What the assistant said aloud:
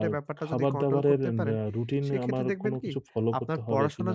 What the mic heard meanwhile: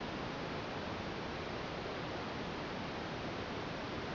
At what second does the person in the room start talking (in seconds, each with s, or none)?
none